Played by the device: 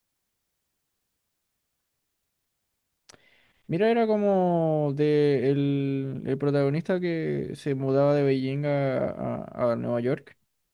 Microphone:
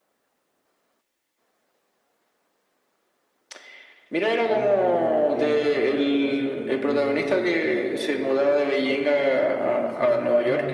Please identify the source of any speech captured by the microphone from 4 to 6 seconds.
both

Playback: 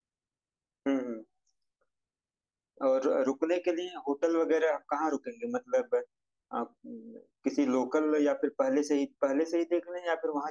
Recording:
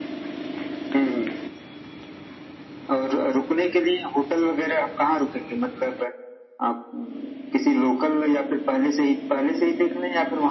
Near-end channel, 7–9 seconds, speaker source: echo only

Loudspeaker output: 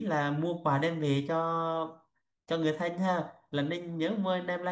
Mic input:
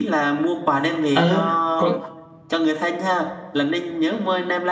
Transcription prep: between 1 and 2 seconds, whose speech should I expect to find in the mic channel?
both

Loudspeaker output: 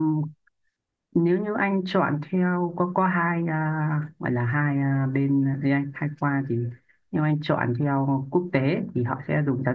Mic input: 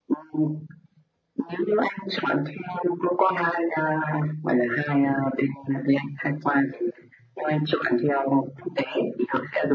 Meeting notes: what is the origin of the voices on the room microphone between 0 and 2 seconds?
echo only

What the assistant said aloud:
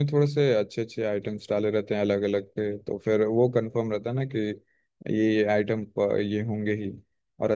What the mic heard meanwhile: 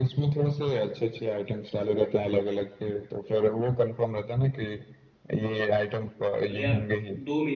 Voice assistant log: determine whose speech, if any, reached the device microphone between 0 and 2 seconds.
echo only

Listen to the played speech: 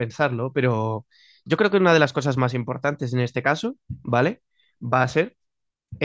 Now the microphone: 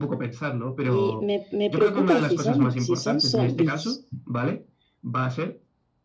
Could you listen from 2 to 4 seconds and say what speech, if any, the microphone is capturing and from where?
both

